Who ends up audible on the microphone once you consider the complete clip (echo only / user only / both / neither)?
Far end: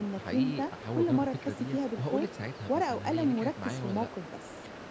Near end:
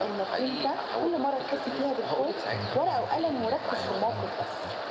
both